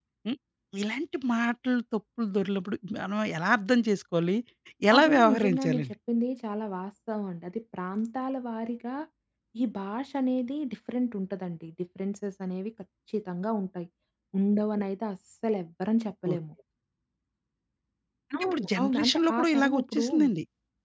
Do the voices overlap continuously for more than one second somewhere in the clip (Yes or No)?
Yes